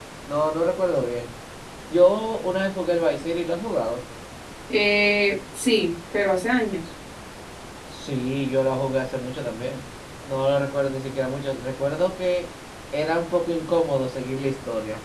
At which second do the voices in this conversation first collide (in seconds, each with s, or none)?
none